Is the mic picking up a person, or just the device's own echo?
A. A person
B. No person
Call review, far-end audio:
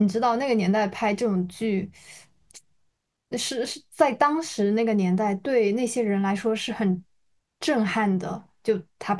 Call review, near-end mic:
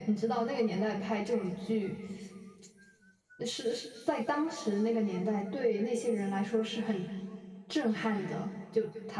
B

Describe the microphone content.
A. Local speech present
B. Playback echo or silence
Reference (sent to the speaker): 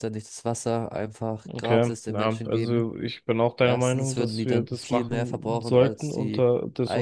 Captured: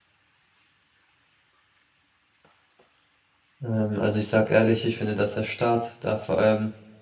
A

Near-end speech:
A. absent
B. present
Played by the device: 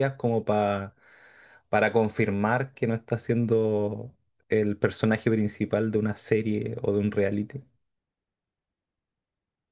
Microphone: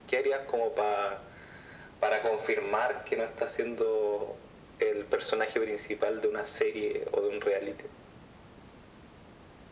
A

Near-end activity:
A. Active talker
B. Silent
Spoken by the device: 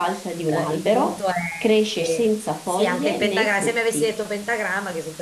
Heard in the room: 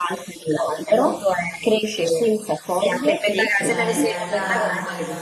A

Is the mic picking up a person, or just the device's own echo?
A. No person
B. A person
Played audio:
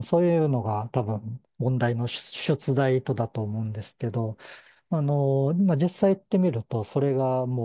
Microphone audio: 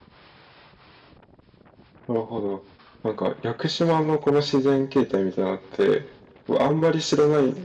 B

